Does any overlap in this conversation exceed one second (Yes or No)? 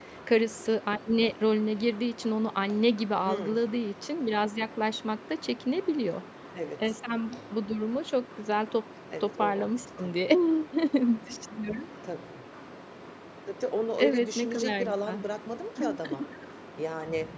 Yes